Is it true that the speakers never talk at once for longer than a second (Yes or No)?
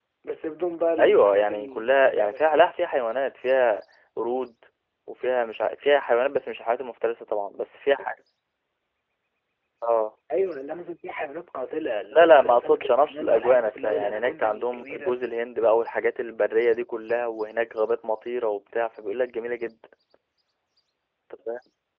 No